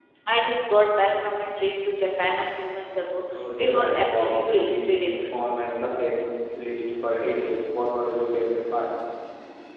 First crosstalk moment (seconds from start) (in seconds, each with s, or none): 3.3 s